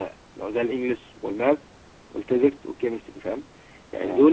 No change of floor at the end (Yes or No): Yes